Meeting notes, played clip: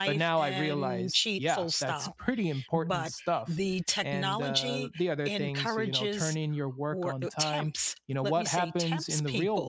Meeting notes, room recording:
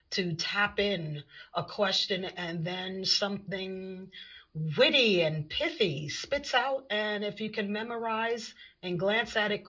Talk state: user only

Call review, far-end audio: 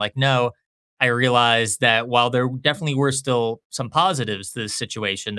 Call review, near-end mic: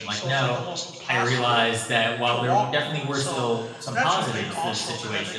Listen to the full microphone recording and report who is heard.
both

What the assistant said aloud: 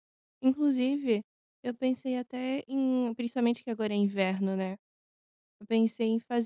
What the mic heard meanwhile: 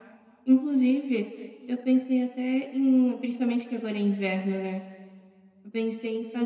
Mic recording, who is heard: echo only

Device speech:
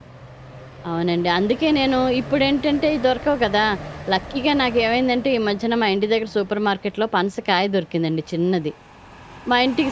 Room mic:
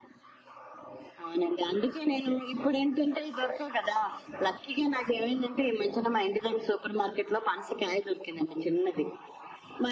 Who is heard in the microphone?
echo only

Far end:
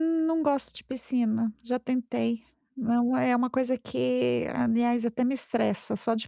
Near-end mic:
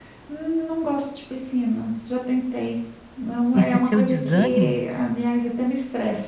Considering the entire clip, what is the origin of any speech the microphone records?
both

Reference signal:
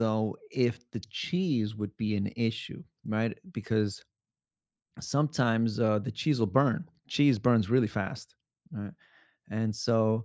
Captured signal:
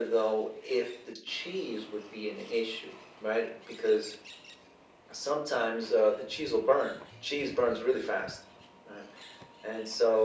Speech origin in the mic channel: echo only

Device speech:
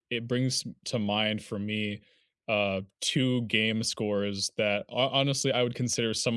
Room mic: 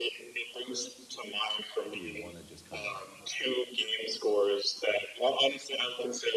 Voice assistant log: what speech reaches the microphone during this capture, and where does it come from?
both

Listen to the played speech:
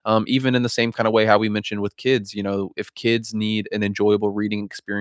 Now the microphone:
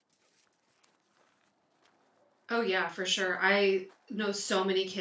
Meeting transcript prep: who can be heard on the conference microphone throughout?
user only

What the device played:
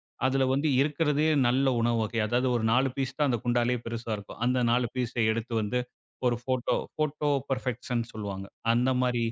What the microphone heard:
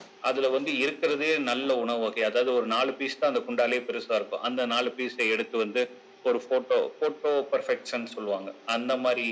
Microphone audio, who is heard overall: echo only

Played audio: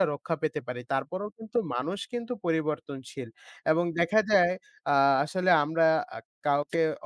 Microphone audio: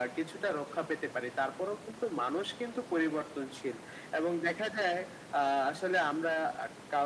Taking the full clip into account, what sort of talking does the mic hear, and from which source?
echo only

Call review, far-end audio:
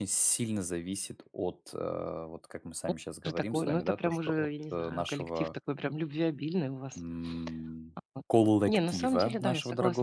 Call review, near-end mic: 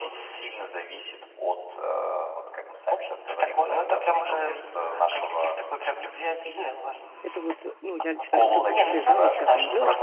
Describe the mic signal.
both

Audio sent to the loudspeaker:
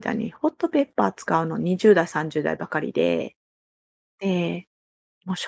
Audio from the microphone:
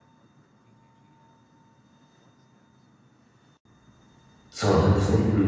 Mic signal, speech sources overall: user only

